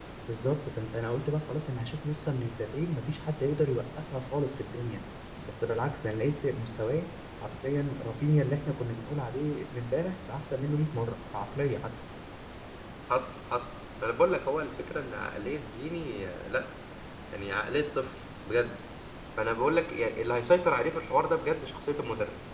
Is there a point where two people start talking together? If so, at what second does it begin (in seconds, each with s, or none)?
none